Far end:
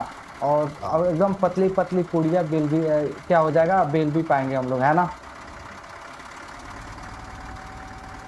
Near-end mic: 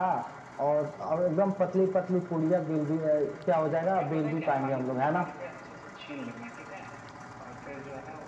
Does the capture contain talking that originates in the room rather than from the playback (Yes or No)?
Yes